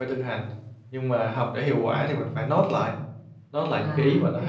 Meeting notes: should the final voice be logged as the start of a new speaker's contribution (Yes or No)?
No